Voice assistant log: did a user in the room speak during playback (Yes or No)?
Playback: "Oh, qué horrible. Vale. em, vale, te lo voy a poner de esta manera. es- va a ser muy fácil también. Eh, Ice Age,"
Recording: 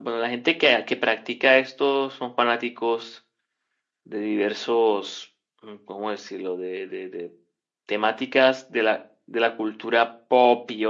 Yes